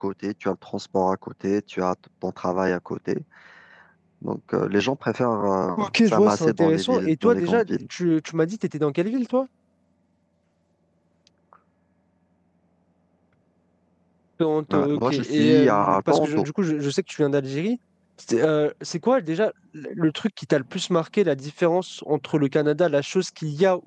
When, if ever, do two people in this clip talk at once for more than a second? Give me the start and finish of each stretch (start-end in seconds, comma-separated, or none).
5.8-7.7, 14.7-16.4